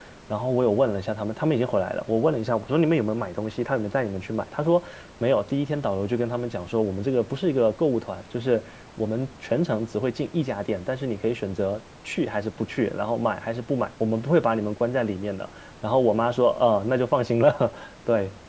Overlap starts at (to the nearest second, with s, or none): none